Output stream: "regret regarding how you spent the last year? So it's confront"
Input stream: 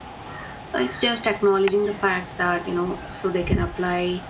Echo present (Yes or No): No